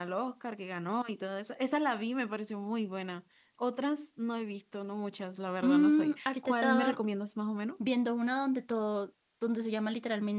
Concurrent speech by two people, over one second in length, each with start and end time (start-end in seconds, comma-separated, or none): 5.6-7.0